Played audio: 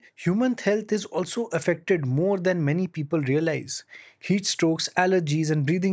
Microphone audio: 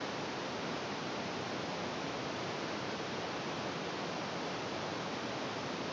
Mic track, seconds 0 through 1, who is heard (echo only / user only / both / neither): neither